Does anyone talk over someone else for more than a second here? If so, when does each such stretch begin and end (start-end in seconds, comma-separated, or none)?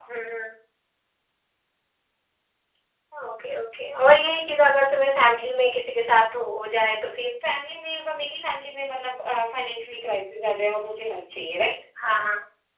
none